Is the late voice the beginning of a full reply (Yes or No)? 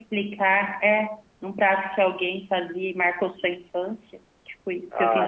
Yes